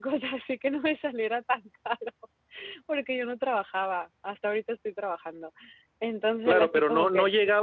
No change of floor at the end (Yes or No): No